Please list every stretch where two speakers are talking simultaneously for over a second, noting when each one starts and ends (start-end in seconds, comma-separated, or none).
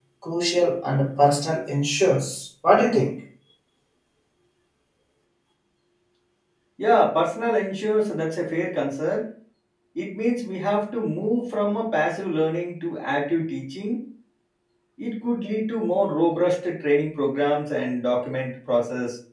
none